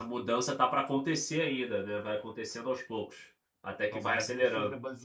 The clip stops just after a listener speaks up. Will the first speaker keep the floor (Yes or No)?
No